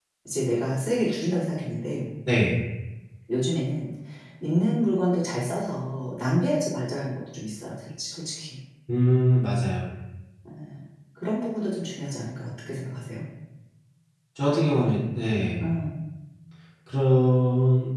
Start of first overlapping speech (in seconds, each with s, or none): none